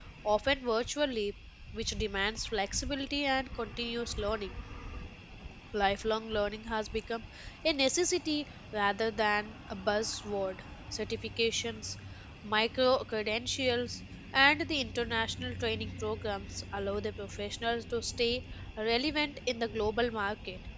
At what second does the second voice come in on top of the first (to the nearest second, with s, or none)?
none